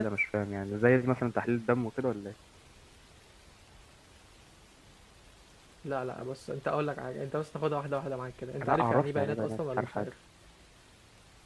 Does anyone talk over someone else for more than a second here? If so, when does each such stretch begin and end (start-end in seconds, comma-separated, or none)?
8.7-10.1